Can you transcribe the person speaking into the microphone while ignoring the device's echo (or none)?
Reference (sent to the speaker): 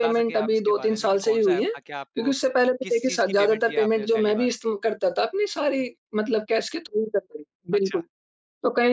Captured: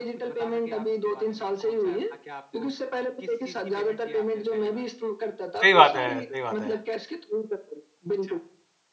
सही बात है सही बात है।